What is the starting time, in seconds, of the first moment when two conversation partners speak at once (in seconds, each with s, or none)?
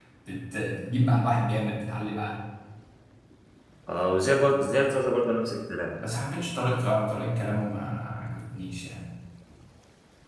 none